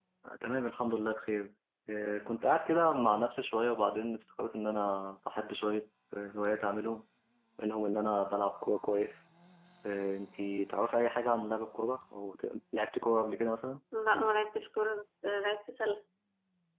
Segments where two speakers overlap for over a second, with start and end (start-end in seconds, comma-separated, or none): none